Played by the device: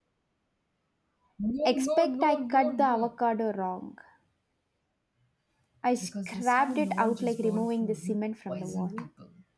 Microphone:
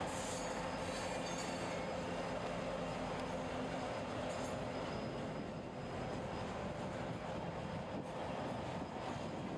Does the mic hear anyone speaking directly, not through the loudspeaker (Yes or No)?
No